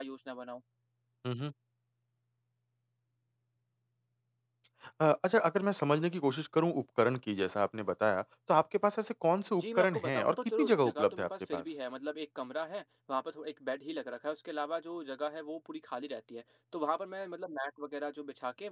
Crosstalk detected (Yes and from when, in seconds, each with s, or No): Yes, from 9.6 s